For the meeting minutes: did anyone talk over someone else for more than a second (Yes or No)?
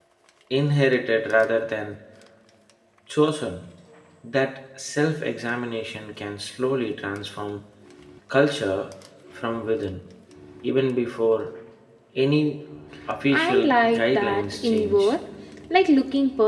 Yes